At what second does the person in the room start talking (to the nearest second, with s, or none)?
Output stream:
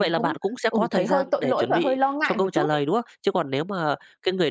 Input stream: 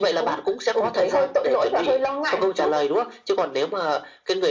none